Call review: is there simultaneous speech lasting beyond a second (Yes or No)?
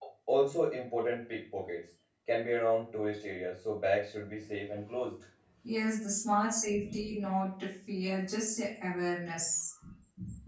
No